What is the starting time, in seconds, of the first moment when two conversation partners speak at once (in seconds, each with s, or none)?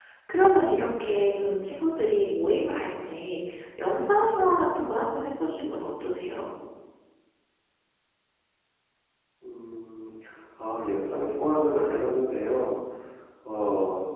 none